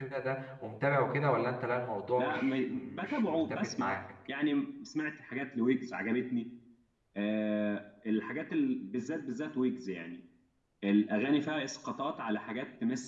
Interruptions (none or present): present